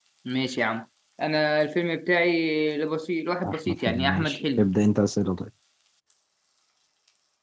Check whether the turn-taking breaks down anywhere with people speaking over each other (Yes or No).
Yes